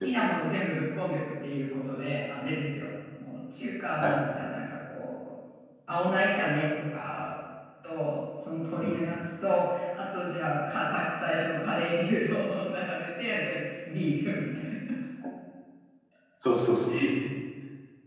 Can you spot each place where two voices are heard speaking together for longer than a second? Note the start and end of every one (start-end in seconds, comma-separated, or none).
none